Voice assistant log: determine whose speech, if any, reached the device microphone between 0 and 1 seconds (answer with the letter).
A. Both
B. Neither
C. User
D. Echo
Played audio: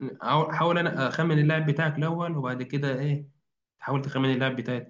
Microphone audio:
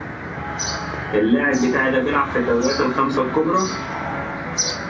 B